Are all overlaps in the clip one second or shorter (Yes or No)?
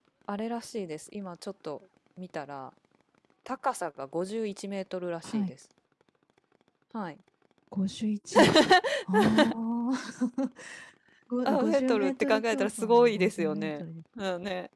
No